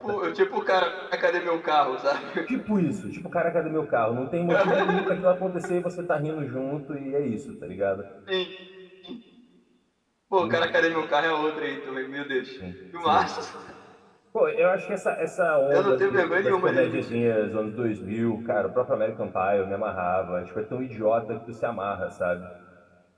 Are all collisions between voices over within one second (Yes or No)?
No